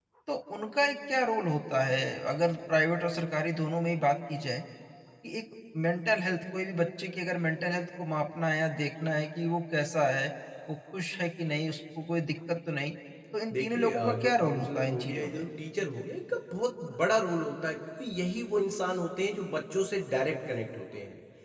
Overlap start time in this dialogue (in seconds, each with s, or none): 13.5 s